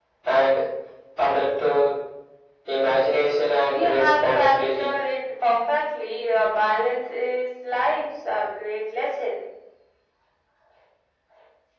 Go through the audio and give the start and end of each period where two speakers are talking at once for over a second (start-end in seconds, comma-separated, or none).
3.7-5.0